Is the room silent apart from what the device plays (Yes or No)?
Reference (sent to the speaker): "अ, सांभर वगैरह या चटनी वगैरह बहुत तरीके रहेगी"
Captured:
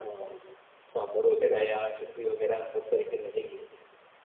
Yes